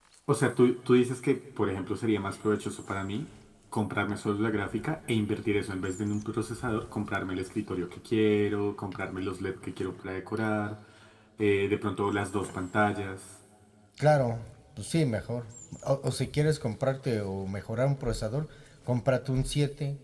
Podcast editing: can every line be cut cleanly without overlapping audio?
Yes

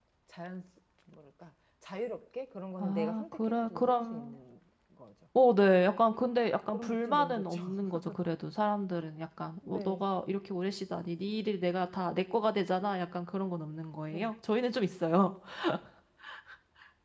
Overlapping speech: Yes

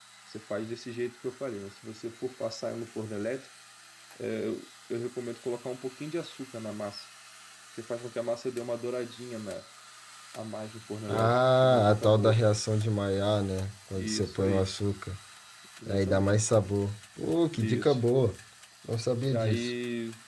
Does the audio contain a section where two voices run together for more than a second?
Yes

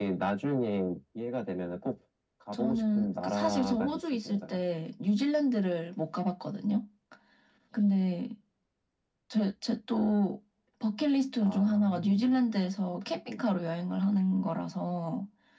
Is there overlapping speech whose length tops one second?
Yes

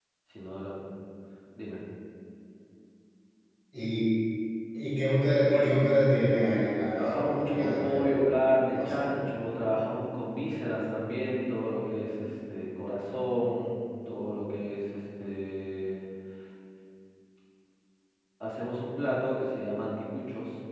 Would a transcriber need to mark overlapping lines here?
Yes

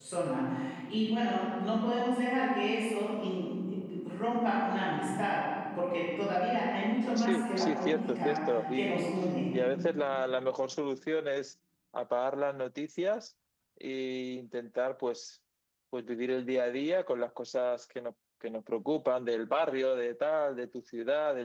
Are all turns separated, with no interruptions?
No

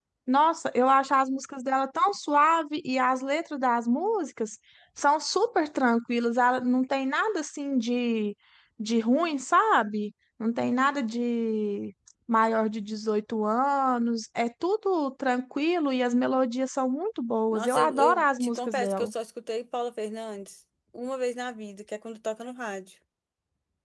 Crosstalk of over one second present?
Yes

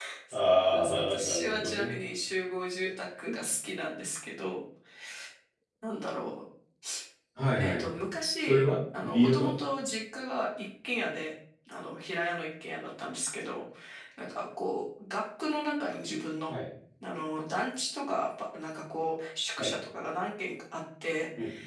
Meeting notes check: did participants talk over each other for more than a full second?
Yes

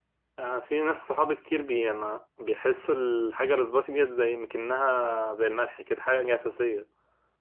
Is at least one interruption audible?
No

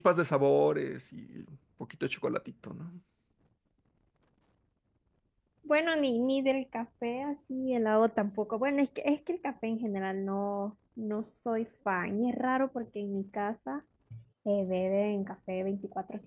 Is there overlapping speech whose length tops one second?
No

